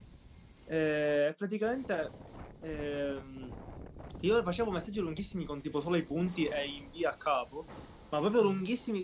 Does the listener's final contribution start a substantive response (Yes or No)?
No